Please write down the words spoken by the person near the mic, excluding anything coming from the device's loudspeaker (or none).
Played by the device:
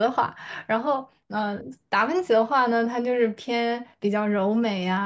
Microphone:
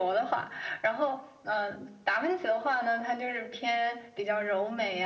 none